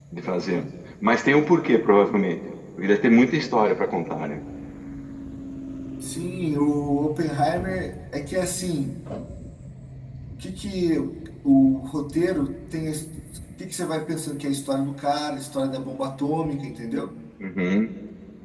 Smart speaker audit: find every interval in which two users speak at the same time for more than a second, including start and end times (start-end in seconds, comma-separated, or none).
none